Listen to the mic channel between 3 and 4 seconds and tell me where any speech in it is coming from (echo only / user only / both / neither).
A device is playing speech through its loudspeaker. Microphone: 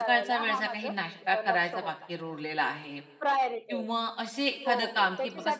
both